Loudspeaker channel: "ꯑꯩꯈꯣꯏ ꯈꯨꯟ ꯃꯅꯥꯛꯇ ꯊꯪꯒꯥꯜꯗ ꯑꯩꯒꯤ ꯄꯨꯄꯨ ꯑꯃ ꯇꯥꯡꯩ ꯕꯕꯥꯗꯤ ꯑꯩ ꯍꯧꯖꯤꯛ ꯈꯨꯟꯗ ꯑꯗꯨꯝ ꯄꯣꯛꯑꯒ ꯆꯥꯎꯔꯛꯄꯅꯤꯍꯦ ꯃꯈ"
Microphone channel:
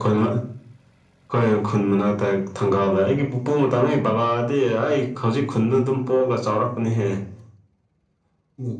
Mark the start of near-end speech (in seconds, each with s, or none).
none